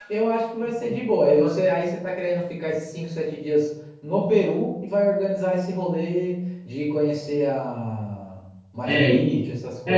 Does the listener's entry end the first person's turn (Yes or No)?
Yes